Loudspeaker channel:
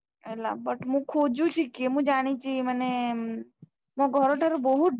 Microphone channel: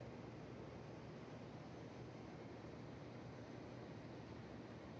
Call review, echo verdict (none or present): none